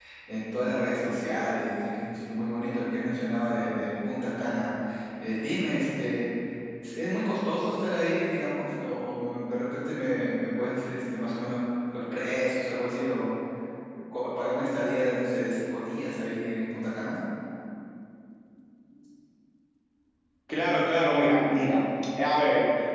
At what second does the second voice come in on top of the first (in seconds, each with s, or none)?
none